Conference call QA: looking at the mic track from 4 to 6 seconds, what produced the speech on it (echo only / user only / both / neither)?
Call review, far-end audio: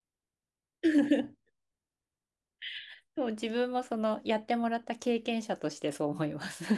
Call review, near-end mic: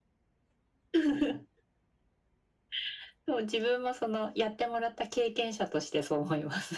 echo only